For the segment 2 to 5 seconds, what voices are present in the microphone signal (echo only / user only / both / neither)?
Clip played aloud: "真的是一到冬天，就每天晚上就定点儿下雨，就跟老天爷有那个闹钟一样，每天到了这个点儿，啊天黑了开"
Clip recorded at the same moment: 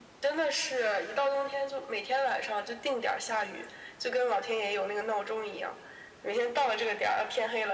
echo only